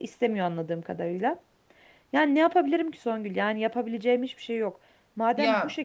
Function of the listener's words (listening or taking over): listening